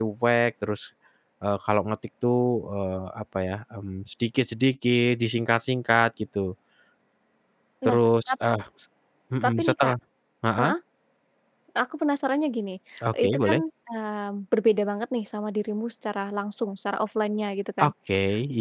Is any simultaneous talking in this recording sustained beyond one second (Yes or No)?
No